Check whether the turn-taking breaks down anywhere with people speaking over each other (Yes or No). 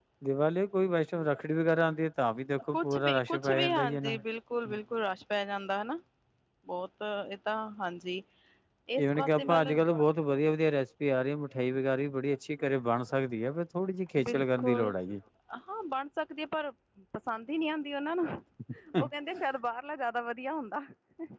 Yes